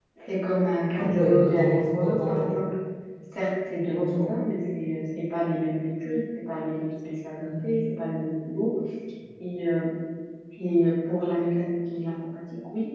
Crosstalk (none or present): present